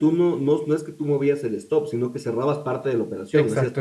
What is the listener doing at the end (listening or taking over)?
taking over